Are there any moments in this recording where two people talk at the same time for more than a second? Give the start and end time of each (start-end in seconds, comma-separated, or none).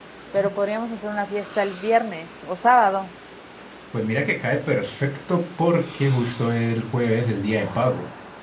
none